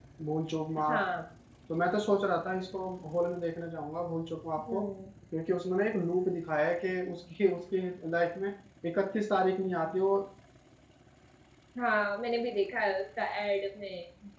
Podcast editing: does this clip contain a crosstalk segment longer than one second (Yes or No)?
No